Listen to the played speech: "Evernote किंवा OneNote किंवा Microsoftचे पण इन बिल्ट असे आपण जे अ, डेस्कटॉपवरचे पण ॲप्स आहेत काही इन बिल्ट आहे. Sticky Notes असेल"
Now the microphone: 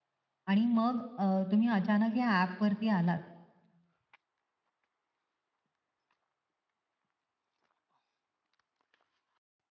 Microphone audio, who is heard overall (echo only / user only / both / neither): user only